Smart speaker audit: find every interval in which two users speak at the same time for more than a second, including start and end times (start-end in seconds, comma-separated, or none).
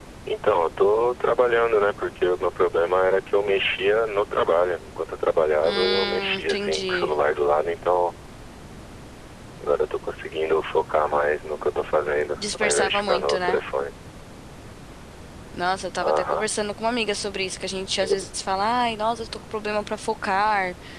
5.6-7.1, 12.4-13.6